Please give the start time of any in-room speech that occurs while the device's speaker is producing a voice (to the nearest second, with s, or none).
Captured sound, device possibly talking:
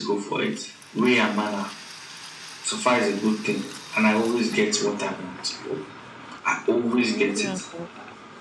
7 s